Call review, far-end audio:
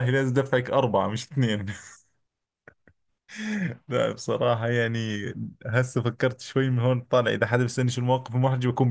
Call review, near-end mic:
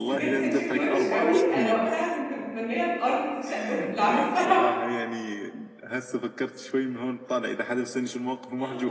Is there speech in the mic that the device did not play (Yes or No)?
Yes